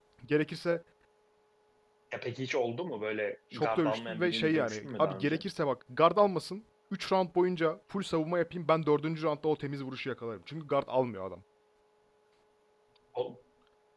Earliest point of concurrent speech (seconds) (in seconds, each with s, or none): 3.5 s